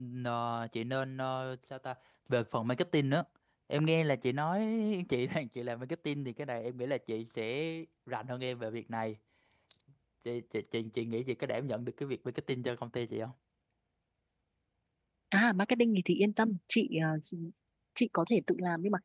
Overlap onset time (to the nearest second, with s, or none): none